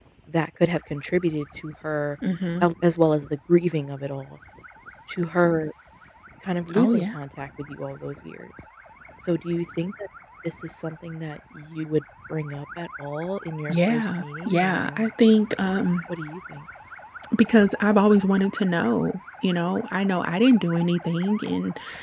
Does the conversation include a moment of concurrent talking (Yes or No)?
Yes